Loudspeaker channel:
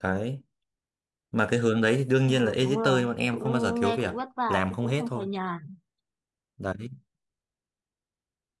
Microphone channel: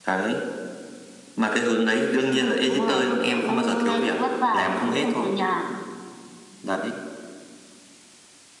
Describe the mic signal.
echo only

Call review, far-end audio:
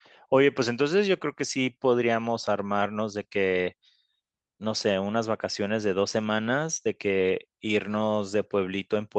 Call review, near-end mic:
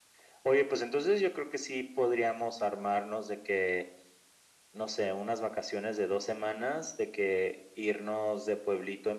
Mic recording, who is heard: echo only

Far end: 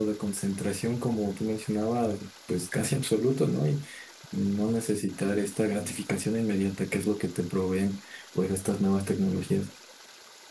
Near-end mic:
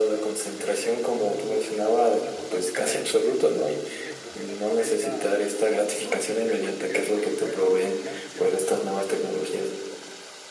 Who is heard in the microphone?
both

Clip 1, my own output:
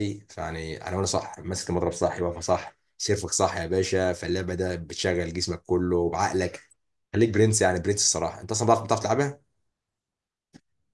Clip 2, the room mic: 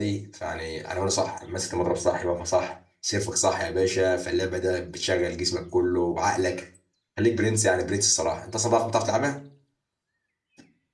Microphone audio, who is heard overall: echo only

